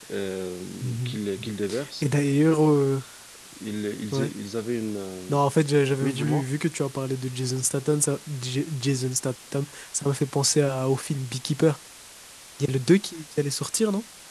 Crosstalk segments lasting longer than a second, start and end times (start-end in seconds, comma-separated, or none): none